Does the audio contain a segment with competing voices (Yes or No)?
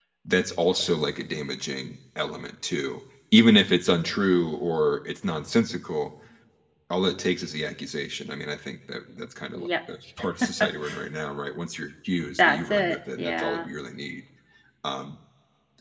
Yes